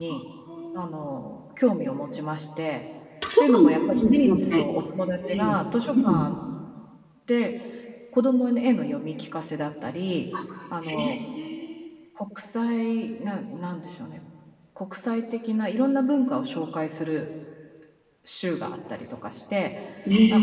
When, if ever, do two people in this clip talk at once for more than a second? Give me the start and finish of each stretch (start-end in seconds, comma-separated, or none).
3.4-4.6